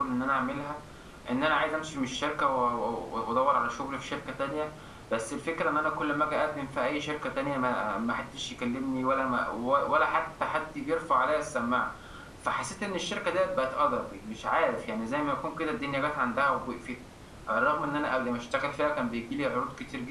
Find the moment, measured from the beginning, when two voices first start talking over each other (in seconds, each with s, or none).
none